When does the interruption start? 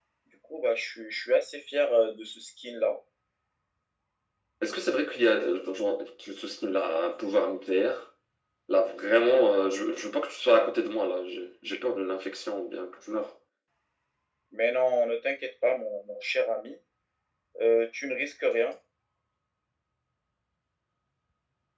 none

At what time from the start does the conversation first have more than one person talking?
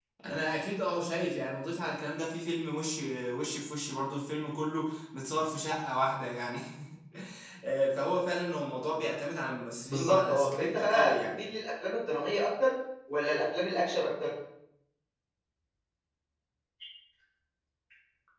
10 s

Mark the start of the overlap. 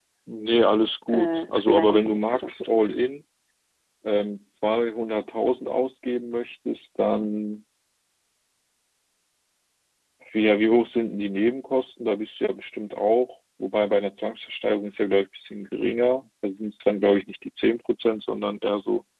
1 s

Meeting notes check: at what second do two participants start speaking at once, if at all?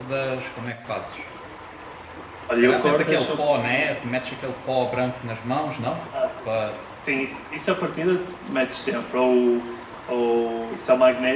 3 s

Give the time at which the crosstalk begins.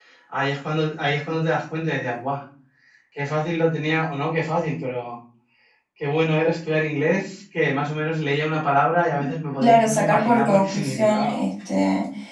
10 s

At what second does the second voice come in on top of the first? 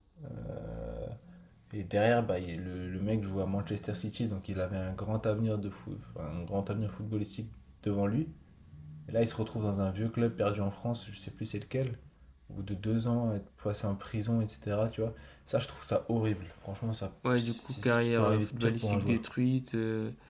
17 s

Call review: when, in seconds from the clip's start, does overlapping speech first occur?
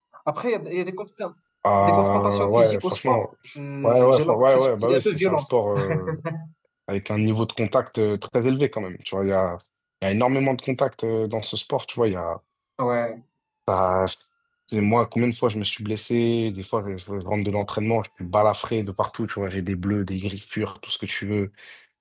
2 s

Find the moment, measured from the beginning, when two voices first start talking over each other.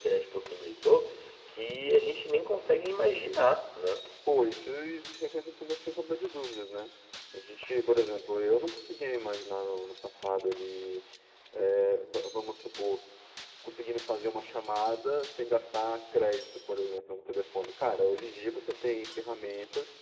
none

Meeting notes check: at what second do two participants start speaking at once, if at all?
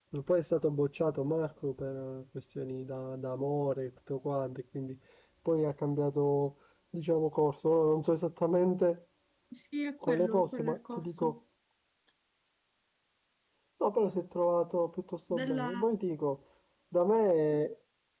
10 s

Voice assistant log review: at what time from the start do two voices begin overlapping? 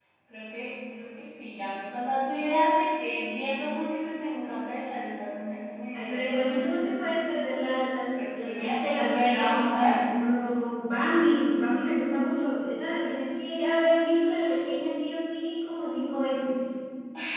6 s

